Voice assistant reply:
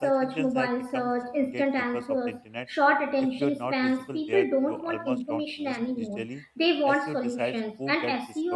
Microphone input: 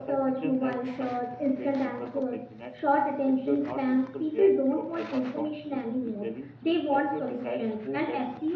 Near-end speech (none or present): none